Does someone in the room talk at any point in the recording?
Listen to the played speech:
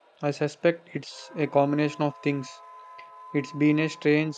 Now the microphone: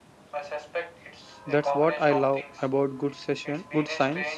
Yes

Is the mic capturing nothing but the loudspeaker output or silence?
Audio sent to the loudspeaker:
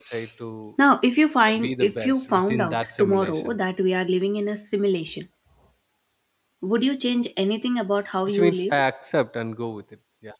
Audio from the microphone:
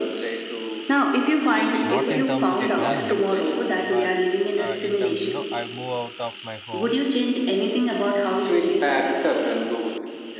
No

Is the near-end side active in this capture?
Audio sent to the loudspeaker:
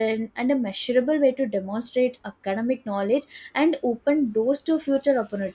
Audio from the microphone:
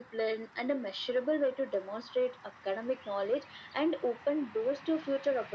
No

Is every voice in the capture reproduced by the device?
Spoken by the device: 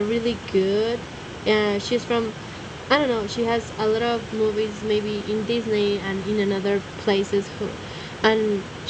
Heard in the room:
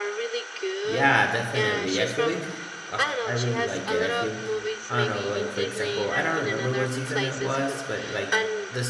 No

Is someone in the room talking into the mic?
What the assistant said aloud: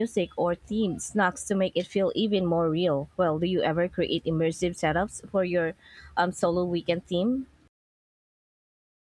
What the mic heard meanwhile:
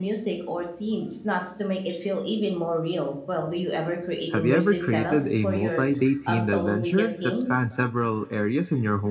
Yes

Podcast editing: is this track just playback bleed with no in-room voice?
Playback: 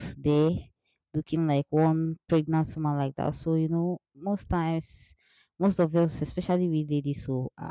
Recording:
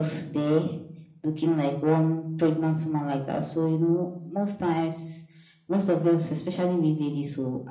Yes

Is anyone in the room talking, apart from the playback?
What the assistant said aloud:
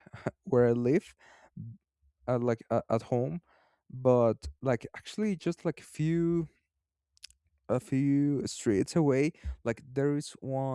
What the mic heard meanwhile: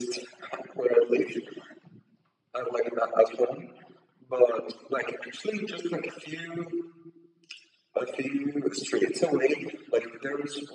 No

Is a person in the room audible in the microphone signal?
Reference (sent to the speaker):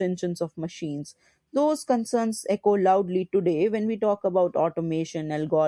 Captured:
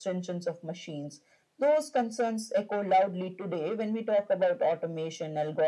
No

